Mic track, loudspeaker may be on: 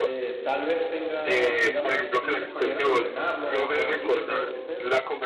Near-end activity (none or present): present